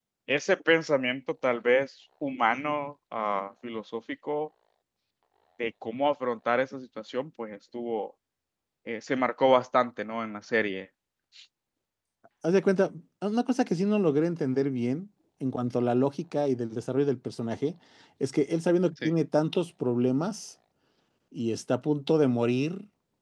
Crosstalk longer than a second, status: none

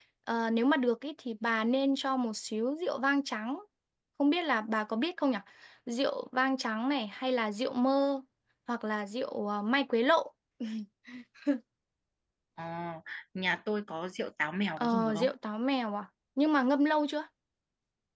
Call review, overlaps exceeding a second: none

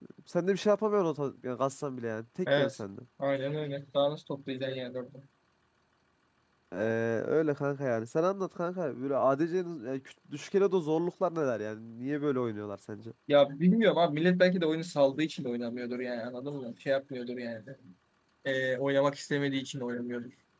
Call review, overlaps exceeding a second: none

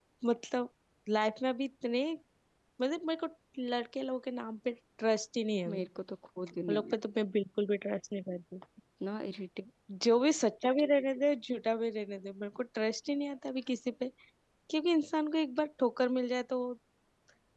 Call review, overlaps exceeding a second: none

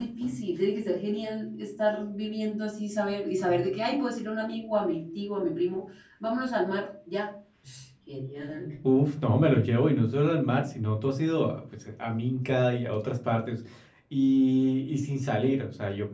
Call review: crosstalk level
none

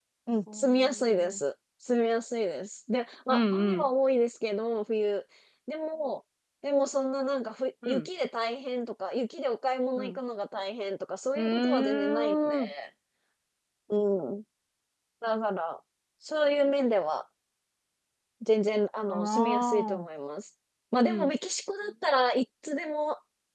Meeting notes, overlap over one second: present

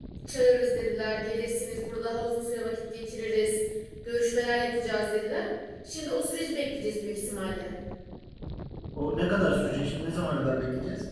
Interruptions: none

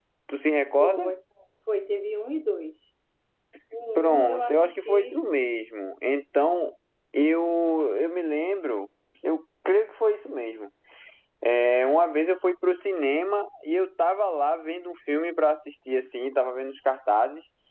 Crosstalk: present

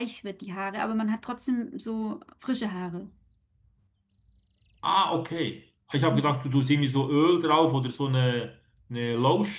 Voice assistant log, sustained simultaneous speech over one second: none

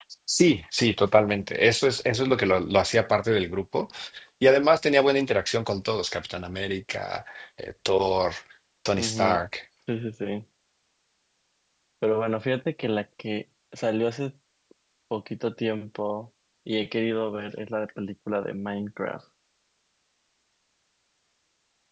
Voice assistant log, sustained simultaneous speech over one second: none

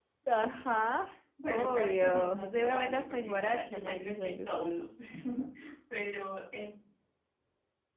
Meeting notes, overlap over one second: present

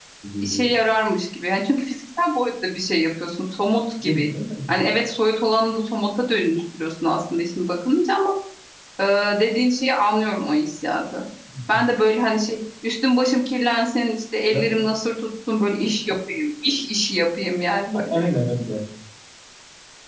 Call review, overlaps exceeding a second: none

